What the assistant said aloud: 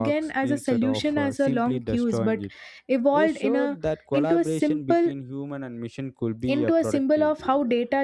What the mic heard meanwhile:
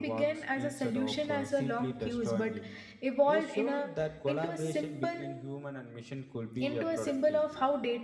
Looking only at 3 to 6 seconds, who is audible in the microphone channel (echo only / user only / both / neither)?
echo only